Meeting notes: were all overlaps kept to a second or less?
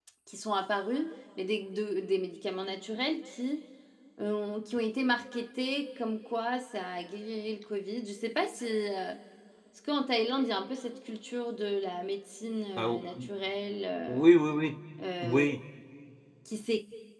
Yes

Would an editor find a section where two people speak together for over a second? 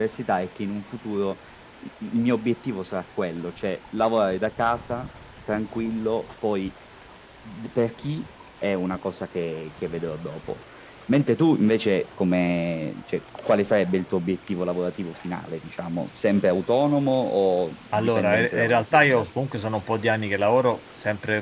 Yes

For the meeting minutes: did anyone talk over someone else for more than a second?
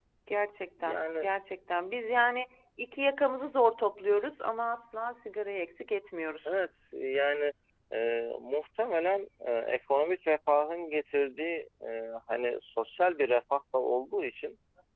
No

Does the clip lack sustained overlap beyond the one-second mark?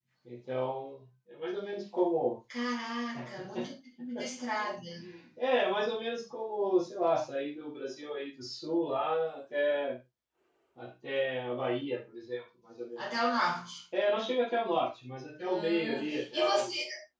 No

